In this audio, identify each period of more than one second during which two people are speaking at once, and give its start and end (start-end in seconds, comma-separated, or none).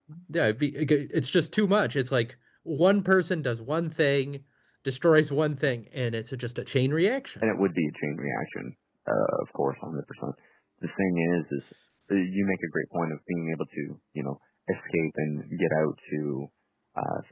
none